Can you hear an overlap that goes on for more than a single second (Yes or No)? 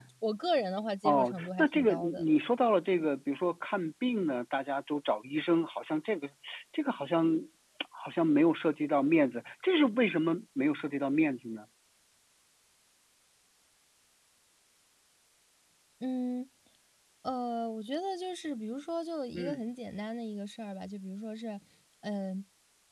Yes